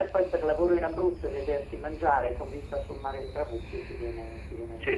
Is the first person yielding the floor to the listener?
Yes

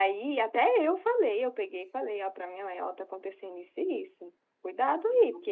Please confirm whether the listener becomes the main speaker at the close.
No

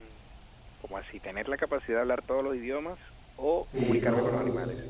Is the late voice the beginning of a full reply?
Yes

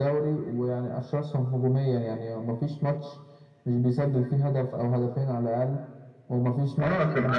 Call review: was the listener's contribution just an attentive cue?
No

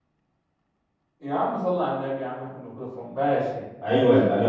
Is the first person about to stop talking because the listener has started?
Yes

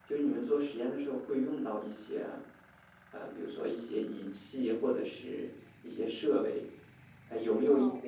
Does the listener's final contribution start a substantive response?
No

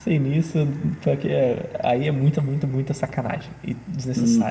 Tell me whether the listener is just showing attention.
No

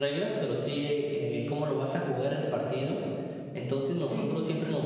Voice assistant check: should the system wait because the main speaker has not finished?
Yes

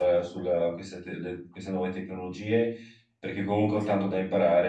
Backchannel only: Yes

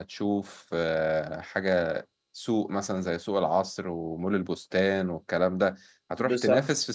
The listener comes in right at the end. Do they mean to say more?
No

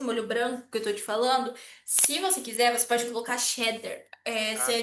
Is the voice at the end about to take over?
No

